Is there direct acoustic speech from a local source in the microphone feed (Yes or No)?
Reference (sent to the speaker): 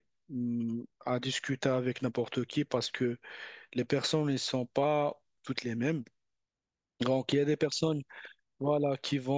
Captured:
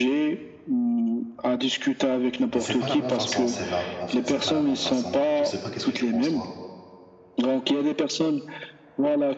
Yes